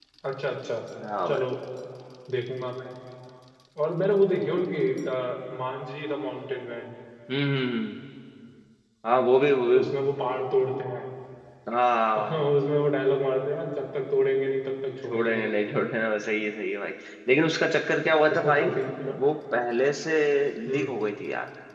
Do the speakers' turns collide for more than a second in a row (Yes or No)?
No